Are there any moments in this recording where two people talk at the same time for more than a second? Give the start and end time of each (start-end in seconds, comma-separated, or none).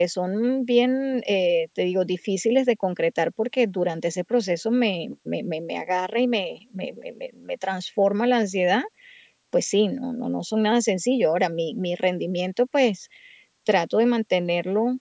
none